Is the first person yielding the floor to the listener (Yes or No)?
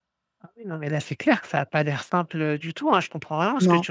No